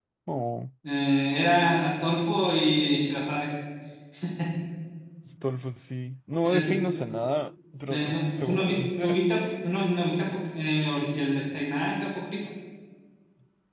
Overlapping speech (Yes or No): Yes